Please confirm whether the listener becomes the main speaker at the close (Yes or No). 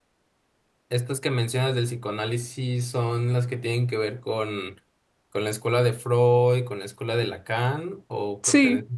Yes